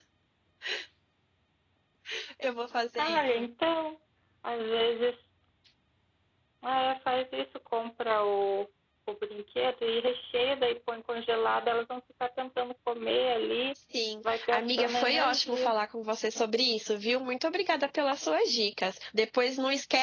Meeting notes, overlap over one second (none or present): present